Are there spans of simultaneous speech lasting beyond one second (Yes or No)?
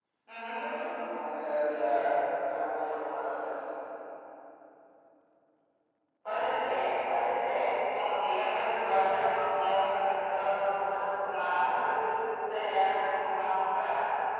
No